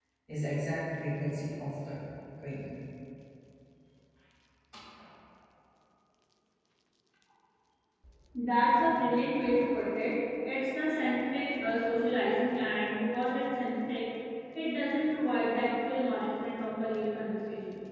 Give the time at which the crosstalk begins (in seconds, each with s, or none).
none